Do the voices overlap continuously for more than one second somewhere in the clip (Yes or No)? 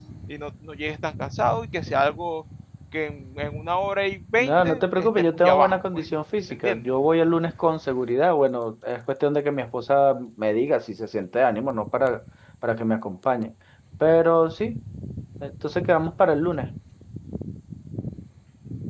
Yes